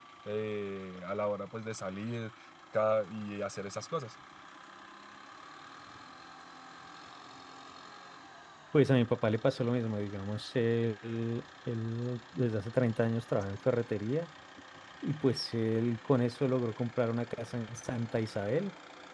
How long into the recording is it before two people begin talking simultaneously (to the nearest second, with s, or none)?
none